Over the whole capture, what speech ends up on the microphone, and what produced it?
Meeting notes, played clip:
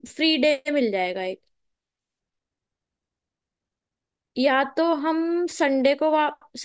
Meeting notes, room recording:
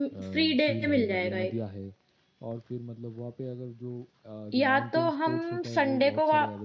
both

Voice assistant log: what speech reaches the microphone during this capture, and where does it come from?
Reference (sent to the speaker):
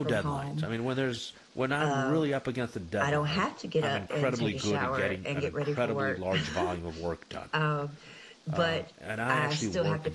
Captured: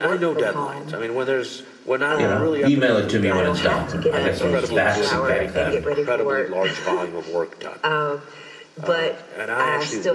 both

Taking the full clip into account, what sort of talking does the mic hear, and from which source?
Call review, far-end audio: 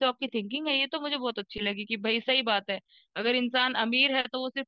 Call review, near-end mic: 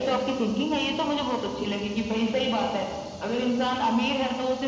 echo only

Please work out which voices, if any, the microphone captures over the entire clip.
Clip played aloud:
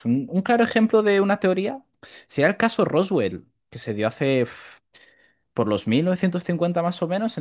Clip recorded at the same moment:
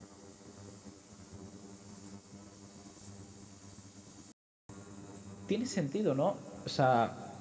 user only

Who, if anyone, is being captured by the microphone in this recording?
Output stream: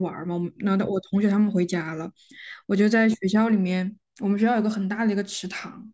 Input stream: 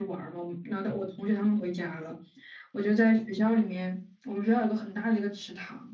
echo only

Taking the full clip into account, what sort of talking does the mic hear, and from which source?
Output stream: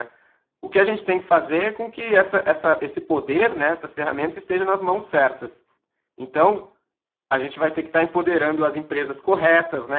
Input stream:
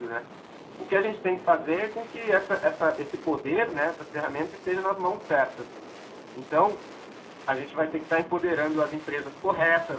echo only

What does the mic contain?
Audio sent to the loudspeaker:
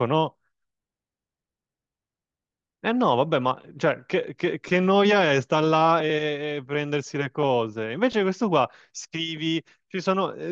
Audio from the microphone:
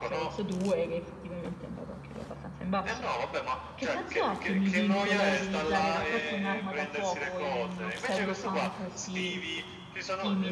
both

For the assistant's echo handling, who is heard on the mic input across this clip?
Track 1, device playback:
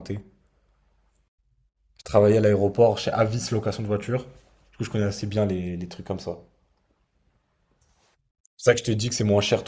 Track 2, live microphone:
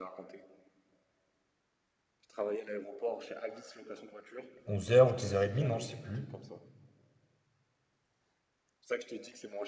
both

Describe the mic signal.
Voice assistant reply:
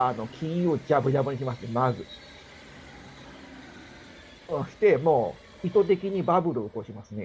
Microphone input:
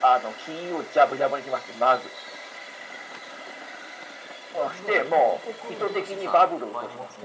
both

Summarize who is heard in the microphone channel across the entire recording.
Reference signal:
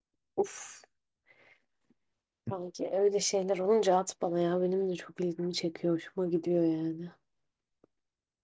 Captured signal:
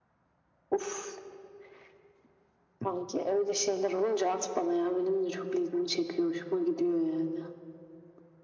echo only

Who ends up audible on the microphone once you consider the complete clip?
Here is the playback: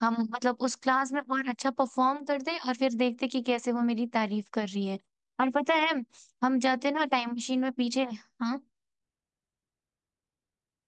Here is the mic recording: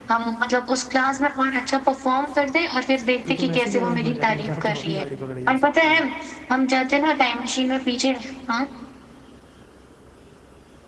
both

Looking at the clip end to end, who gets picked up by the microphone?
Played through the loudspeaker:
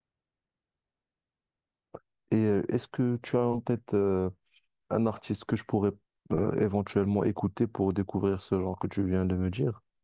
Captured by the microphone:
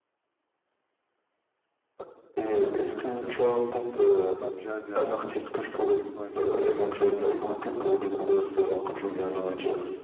both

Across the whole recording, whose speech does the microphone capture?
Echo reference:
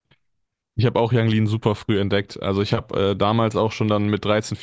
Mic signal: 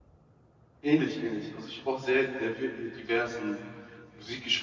user only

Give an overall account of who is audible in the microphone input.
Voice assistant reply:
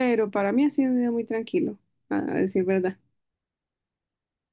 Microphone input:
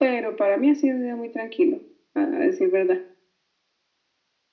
echo only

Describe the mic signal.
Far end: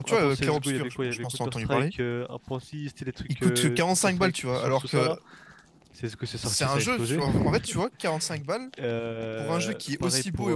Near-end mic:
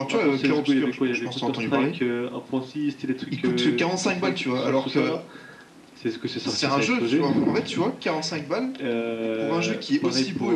echo only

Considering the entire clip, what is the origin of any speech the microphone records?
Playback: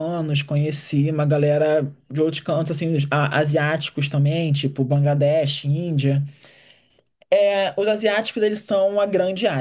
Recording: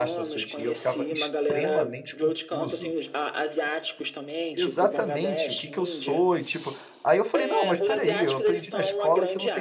both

